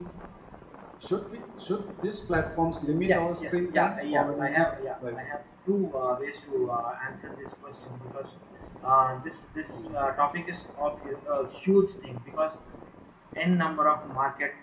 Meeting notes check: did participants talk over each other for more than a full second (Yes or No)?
Yes